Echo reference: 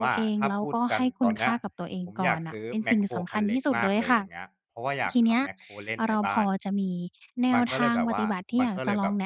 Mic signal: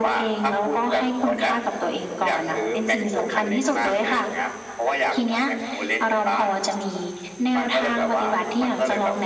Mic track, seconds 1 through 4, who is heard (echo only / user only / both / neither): echo only